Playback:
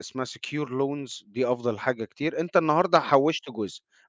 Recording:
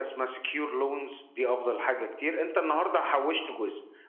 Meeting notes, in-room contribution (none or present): none